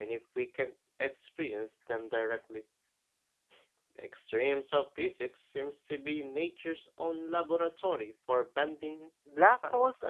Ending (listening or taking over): taking over